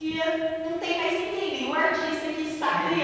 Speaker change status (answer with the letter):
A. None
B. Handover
A